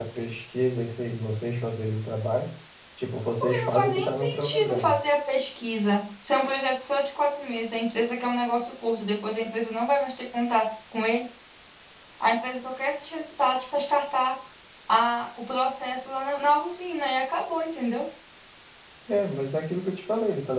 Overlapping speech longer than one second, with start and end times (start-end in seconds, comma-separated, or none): 3.4-5.0